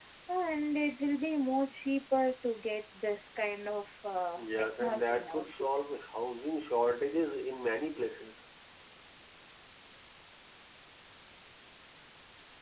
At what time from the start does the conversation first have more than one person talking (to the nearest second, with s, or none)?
4 s